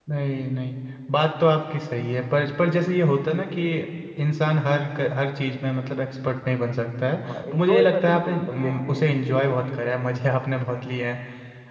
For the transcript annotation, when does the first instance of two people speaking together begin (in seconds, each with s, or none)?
7.2 s